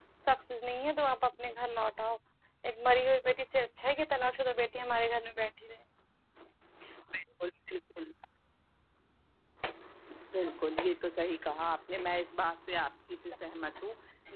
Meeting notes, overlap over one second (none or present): none